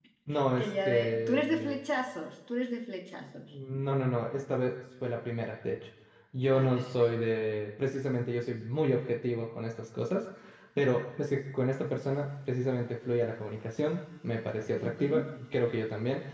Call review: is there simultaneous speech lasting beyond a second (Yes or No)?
Yes